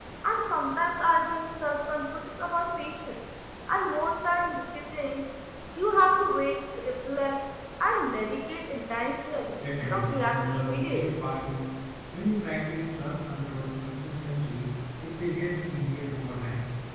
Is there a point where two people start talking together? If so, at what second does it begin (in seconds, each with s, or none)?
9.5 s